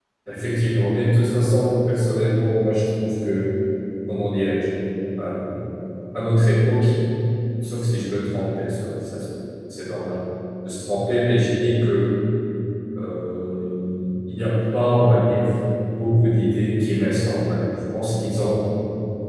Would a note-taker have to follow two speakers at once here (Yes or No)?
No